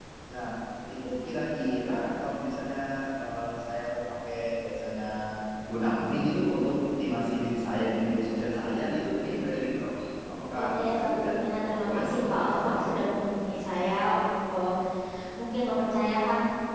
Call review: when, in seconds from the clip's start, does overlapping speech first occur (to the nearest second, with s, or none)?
11 s